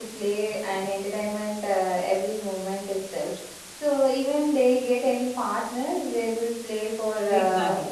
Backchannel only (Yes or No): No